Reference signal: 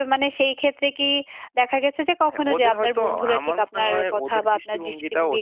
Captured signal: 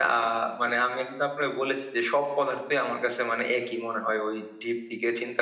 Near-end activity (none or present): present